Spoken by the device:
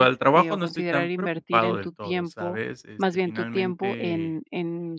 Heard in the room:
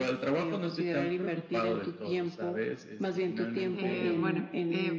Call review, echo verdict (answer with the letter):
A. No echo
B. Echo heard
B